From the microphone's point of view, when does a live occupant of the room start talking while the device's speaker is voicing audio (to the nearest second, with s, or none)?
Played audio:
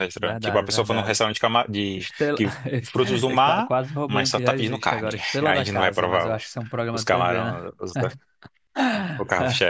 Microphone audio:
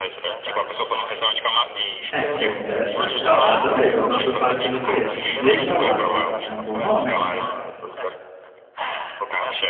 2 s